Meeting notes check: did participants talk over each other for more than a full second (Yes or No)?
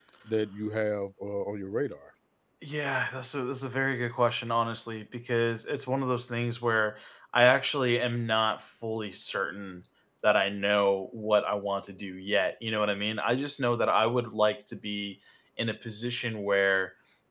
No